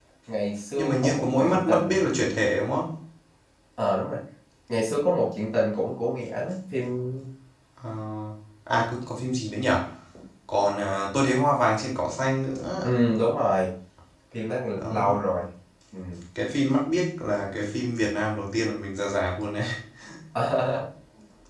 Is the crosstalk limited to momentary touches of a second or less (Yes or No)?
No